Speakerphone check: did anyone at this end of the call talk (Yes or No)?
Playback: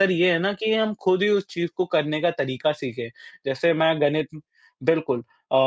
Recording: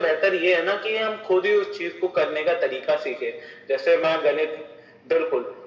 No